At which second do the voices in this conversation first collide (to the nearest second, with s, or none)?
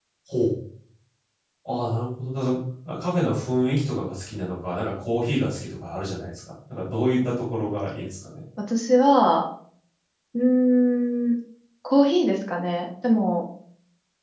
none